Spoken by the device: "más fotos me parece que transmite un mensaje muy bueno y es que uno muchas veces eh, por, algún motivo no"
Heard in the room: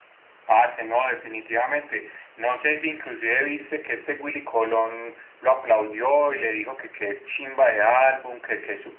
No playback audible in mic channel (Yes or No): Yes